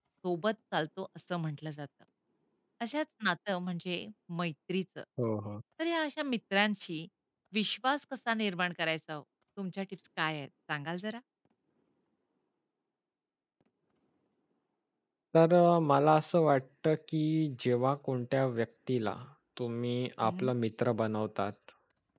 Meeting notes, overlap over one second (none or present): none